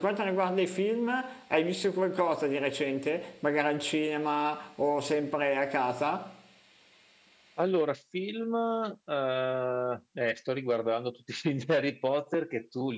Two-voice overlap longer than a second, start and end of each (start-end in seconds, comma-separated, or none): none